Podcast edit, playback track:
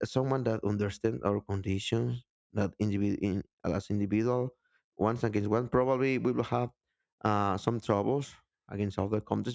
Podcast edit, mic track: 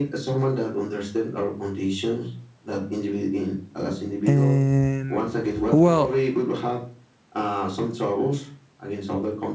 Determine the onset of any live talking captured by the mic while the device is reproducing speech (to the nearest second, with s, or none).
4 s